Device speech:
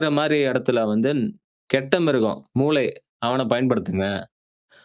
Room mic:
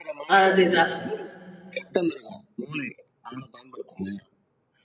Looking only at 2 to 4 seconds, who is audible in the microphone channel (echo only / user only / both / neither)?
echo only